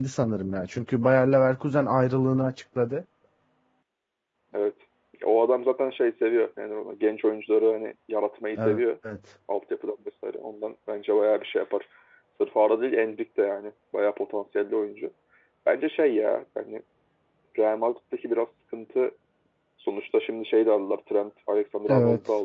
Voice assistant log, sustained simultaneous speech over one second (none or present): none